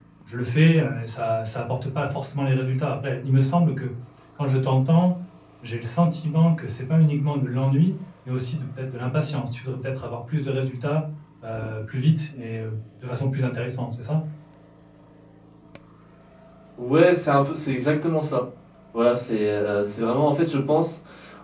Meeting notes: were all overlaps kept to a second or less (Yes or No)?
Yes